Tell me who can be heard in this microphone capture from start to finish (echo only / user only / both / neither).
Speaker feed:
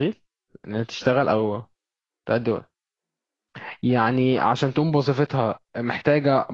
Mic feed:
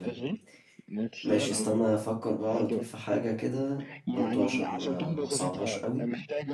both